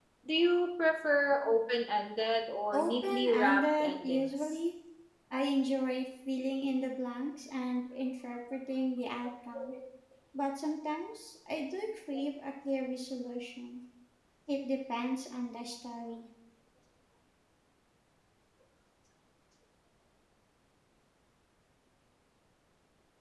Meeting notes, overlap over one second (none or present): present